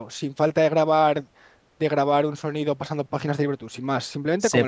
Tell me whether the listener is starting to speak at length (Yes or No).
Yes